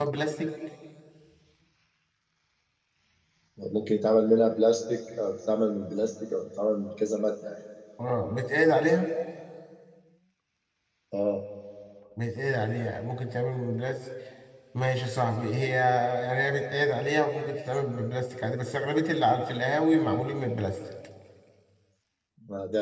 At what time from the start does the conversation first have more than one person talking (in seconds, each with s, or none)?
none